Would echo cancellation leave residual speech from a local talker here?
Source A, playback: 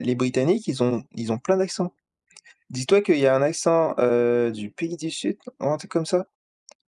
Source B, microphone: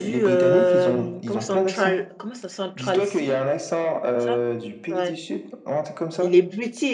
Yes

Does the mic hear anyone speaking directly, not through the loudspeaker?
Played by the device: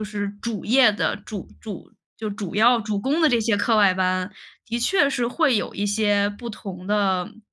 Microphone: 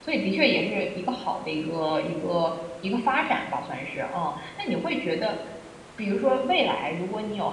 Yes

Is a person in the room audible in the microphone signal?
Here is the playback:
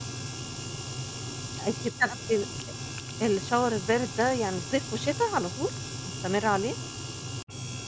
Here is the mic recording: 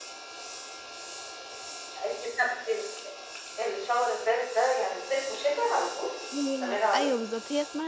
Yes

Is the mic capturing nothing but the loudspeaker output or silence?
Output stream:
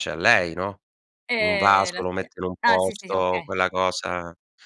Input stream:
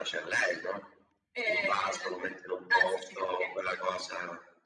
Yes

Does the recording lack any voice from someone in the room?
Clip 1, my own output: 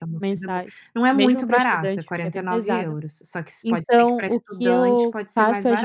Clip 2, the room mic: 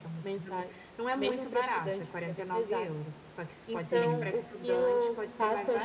No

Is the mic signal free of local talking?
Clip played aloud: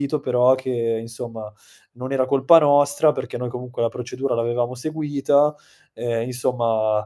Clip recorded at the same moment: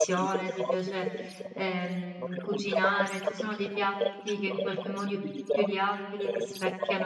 No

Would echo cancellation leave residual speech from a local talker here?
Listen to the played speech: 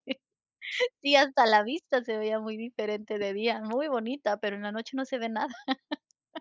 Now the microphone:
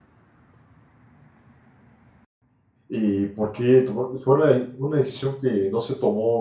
Yes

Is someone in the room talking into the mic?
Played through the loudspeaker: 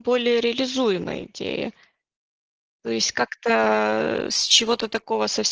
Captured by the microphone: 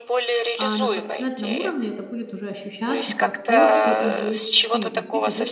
Yes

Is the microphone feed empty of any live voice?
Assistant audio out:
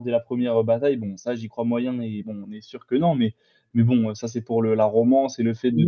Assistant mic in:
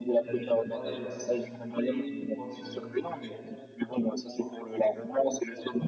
No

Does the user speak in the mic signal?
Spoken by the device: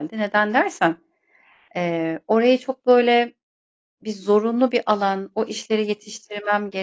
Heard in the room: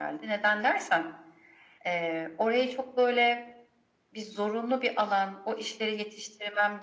No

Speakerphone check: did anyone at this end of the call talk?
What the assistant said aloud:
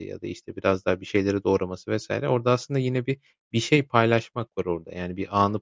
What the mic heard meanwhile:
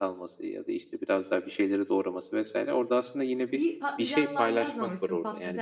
Yes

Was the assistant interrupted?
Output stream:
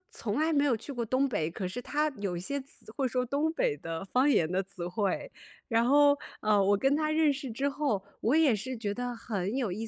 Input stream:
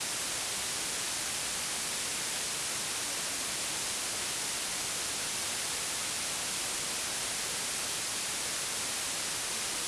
No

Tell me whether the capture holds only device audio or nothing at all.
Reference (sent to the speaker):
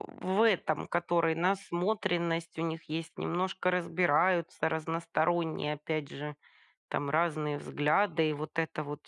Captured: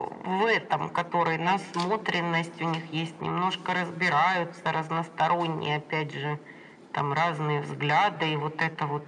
Yes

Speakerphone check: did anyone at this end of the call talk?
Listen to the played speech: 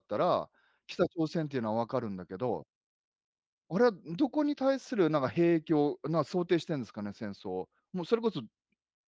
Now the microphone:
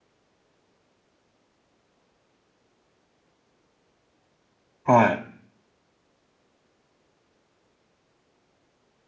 Yes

